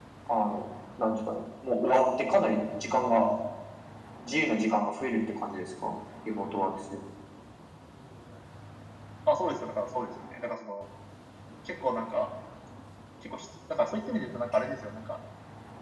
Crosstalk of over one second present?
No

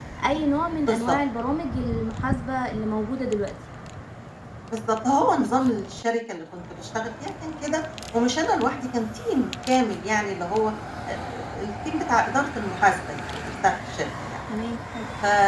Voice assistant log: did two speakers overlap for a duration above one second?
No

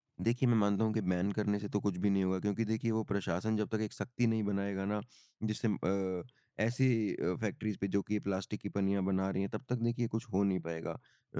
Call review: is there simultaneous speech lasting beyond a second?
No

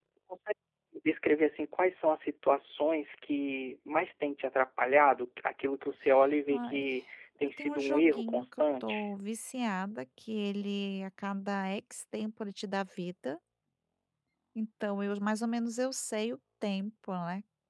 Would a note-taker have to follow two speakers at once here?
Yes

